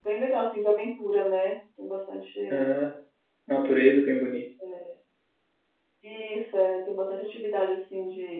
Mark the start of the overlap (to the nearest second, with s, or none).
none